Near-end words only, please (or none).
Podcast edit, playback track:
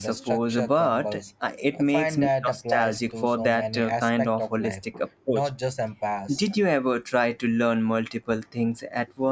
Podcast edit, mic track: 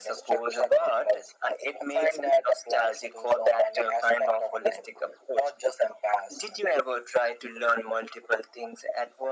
none